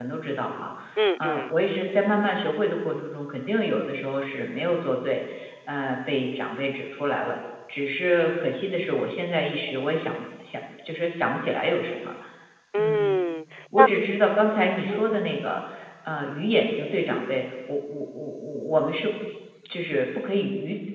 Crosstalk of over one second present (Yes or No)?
No